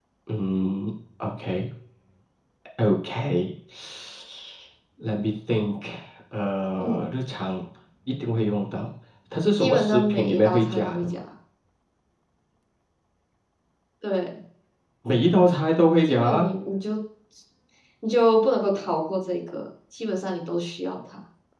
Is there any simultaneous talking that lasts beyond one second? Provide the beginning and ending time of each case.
9.6-11.2

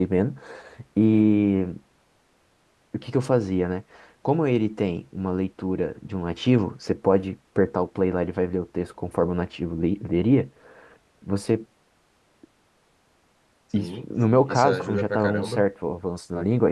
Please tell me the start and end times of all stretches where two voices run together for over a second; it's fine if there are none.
13.8-15.6

